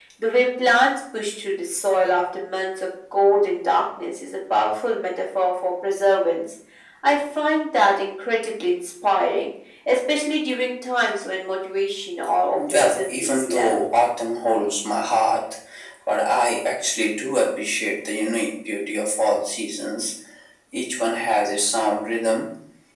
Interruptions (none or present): present